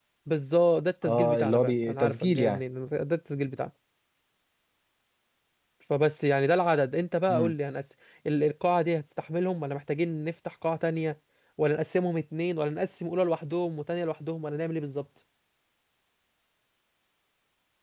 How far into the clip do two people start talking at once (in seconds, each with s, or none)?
1.0 s